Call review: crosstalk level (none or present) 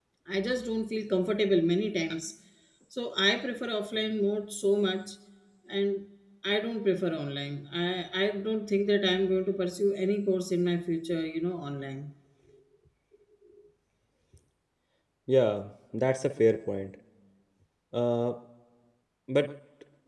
none